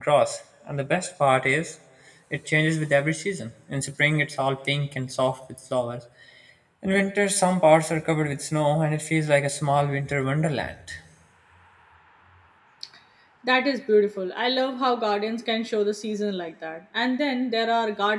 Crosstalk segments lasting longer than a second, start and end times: none

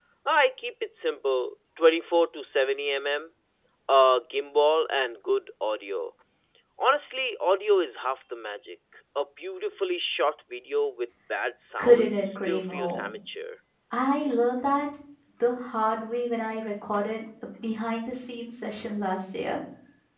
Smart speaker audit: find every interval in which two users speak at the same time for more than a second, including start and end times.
11.8-13.0

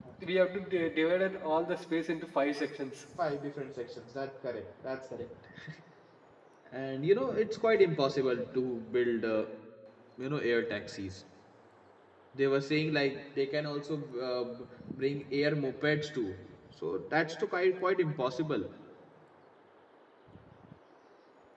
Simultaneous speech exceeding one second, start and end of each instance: none

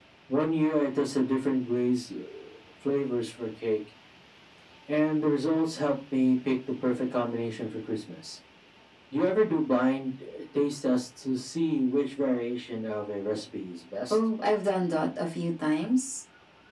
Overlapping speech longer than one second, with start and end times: none

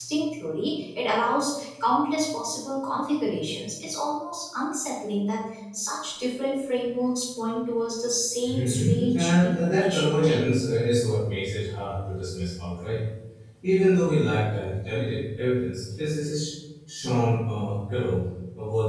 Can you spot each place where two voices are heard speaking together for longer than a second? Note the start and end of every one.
8.4-10.4

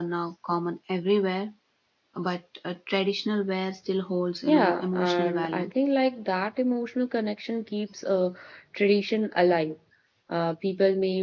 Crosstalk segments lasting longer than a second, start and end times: 4.5-5.7

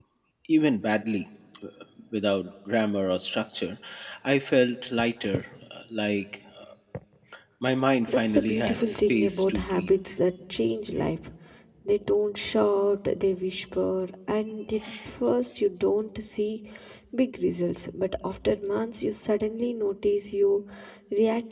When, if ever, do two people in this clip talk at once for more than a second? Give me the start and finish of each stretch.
8.1-9.9

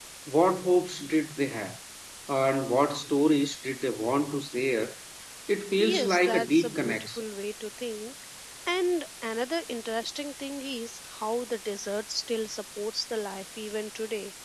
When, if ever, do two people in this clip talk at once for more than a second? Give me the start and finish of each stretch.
5.8-7.2

